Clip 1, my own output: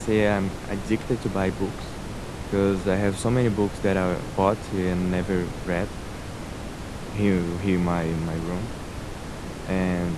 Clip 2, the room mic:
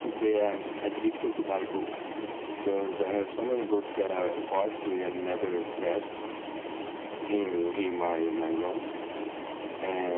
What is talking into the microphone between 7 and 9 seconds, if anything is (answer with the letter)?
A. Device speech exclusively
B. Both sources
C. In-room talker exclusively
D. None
A